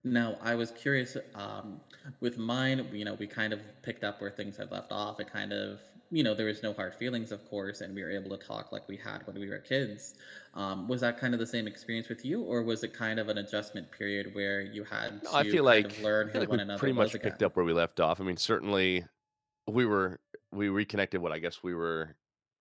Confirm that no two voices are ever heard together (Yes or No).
No